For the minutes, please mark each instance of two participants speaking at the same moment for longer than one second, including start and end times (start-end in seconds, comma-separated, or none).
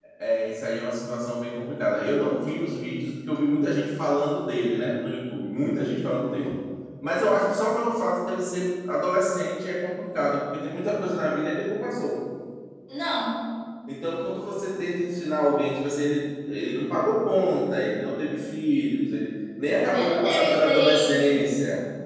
19.9-21.3